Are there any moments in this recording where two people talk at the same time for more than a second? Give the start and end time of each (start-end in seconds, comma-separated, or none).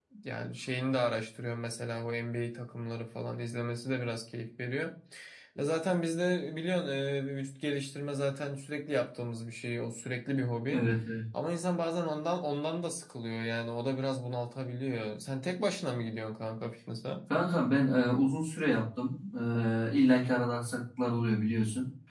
none